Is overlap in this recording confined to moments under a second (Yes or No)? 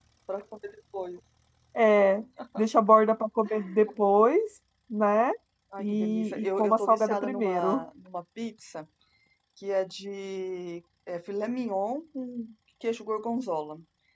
No